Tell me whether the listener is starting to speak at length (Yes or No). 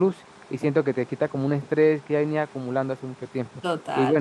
Yes